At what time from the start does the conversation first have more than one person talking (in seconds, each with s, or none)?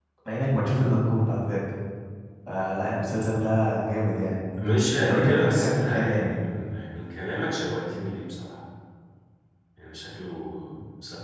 5.0 s